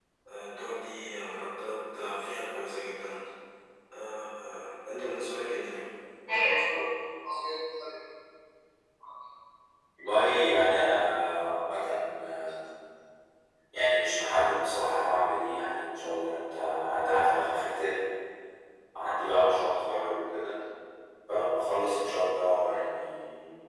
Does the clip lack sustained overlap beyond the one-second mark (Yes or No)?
Yes